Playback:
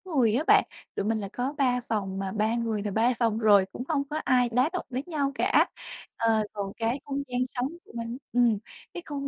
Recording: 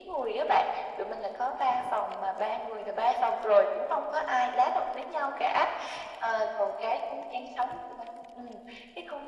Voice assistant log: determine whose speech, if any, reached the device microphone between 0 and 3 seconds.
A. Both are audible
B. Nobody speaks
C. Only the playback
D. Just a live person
C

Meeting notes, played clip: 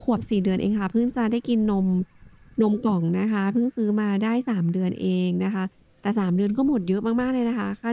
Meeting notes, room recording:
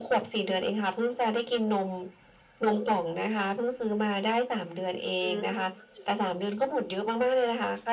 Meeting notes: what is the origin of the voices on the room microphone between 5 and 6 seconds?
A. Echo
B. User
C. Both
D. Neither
C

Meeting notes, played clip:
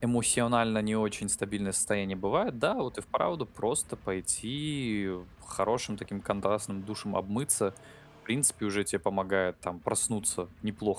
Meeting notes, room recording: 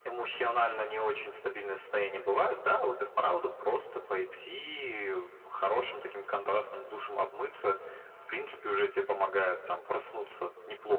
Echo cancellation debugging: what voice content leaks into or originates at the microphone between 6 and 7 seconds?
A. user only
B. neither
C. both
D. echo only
D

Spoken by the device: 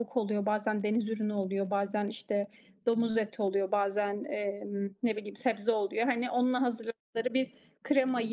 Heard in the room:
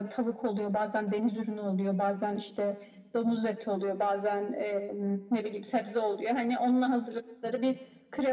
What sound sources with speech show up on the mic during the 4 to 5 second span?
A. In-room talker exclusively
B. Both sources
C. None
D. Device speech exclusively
D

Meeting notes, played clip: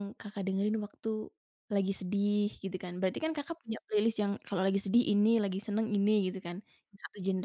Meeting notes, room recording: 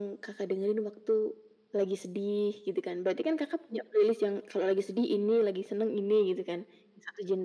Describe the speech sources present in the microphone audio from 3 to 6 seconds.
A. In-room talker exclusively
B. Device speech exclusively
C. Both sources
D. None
B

